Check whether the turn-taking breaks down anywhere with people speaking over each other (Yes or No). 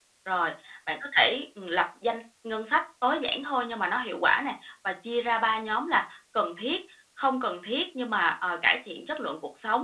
No